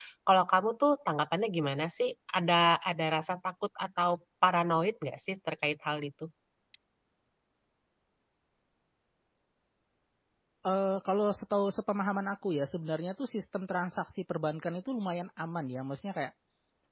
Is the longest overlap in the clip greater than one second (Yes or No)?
No